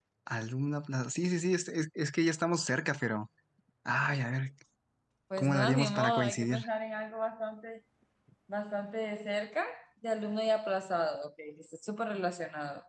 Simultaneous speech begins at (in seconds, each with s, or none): 5.4 s